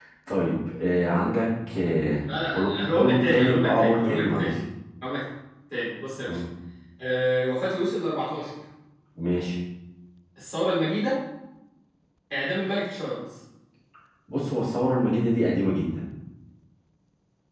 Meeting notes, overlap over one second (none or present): present